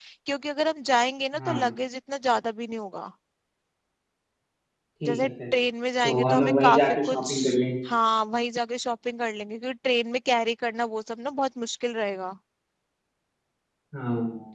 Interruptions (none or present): present